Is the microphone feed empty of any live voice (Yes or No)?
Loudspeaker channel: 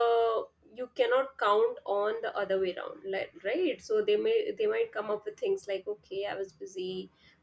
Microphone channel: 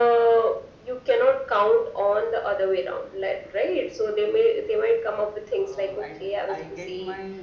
No